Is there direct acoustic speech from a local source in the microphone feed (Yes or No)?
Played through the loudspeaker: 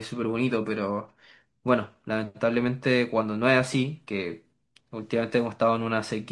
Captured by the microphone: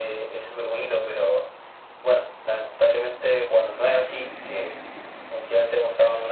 No